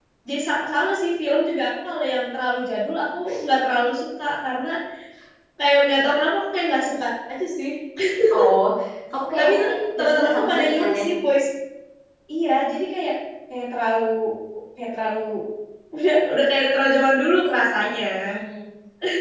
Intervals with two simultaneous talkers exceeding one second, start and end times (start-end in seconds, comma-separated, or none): 9.4-11.0